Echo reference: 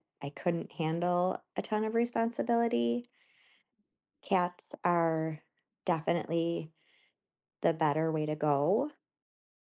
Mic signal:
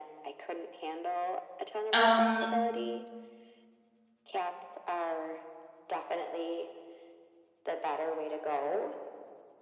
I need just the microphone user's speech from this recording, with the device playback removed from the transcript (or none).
um